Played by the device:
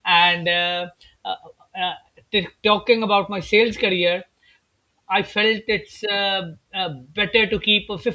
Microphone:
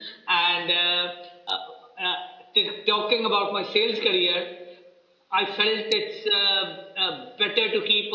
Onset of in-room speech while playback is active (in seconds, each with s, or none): none